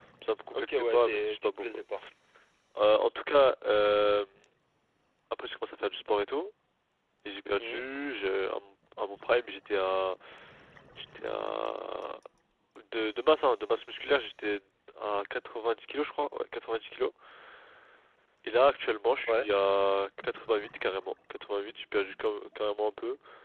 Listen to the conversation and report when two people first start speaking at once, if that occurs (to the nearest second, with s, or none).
1 s